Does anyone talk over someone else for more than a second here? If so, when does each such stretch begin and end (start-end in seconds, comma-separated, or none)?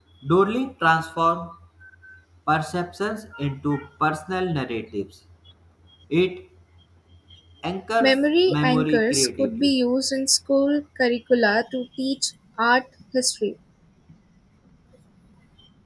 8.0-9.7